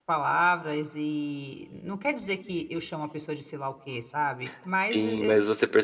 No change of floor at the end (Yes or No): No